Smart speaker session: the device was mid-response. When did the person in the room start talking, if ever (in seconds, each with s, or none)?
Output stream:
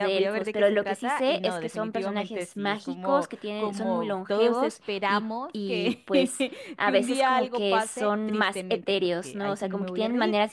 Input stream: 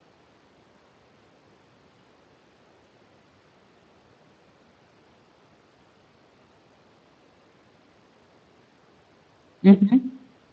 9.6 s